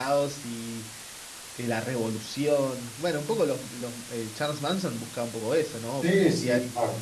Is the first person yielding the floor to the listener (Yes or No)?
Yes